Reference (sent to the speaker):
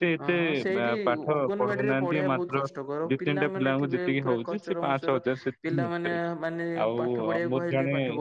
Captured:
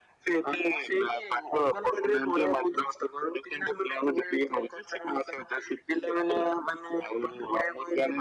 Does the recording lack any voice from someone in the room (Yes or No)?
Yes